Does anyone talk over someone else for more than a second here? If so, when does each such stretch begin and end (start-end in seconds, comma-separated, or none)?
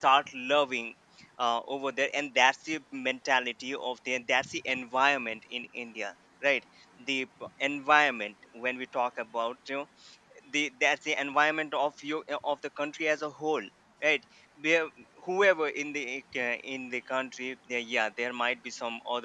none